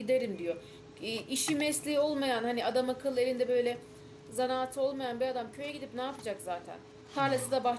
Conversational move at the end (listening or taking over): listening